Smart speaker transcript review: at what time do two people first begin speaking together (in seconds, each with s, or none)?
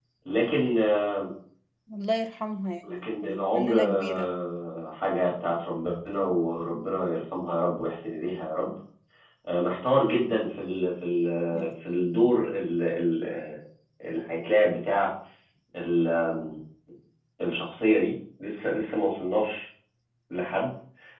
2.8 s